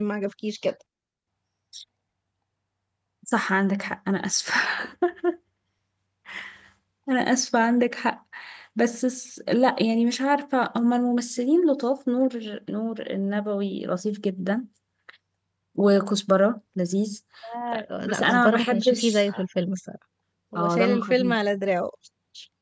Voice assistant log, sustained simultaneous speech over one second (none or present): present